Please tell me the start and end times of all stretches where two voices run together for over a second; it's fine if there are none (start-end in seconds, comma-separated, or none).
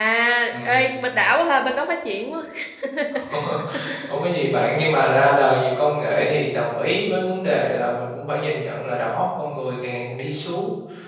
none